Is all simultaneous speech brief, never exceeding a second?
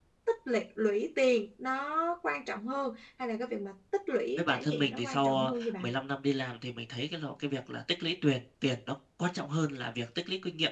No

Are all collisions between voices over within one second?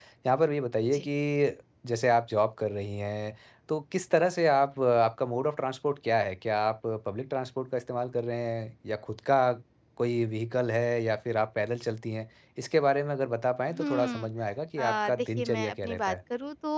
No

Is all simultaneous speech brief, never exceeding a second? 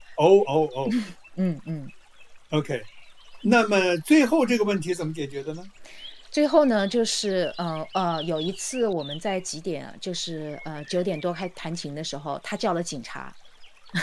Yes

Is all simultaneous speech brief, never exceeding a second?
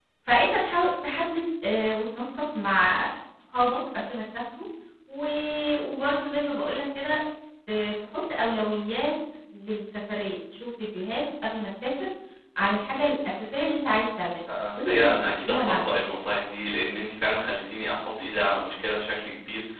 No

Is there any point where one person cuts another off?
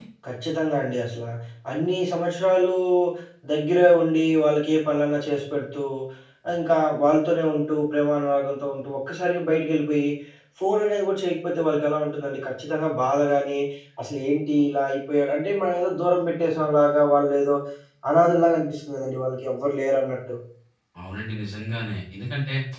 No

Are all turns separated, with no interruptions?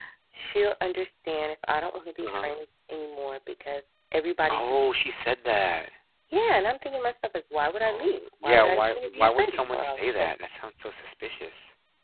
No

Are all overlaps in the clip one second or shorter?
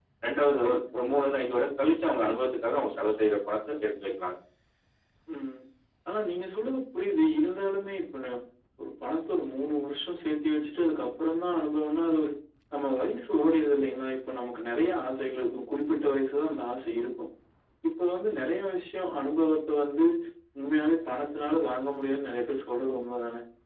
Yes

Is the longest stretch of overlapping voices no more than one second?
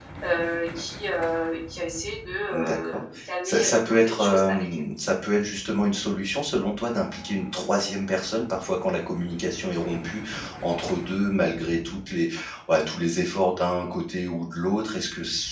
No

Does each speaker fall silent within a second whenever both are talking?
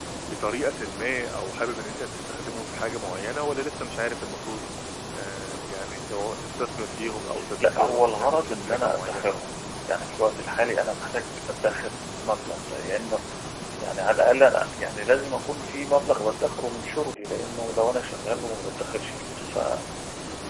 No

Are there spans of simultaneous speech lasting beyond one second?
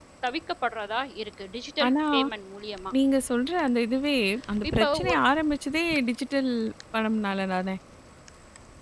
No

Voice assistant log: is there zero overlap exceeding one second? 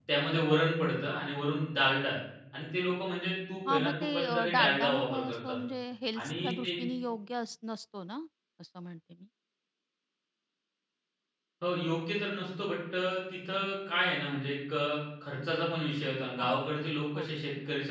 No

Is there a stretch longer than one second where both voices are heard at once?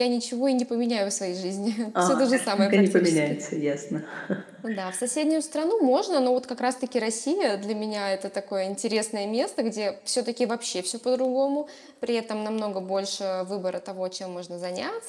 Yes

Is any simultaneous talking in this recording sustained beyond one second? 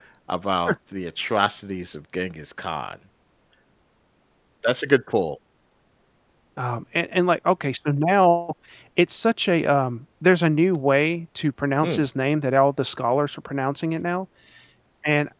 No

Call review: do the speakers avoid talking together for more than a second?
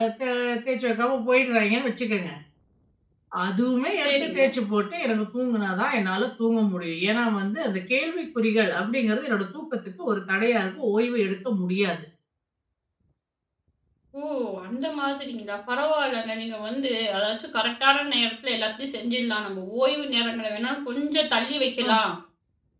Yes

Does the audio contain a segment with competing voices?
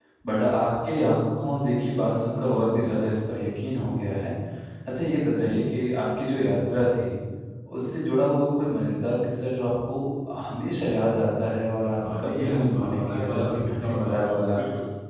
Yes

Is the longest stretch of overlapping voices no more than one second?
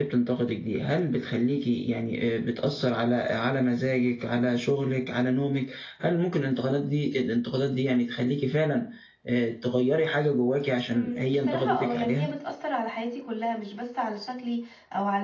No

